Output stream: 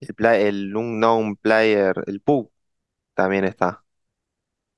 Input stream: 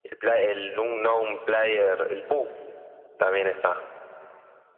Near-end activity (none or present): none